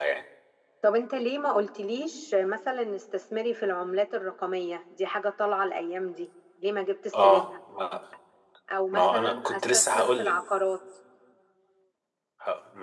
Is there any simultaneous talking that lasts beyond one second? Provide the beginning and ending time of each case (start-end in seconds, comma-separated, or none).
8.9-10.4